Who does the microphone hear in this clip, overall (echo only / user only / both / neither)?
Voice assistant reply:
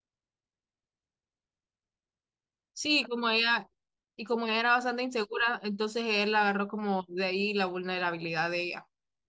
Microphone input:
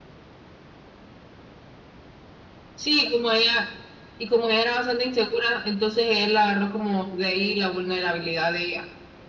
echo only